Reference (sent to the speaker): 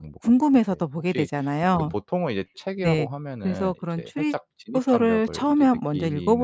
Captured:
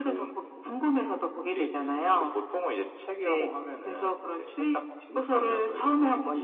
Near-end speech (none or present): none